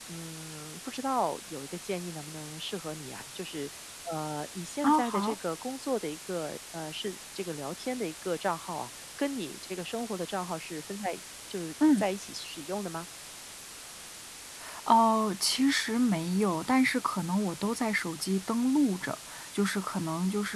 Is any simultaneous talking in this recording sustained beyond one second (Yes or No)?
No